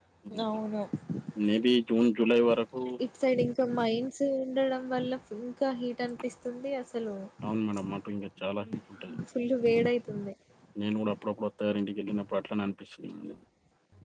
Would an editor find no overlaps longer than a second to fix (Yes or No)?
Yes